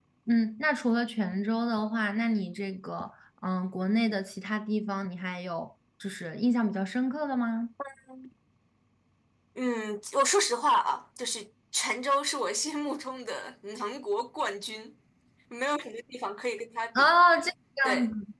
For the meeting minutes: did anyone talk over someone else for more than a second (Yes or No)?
No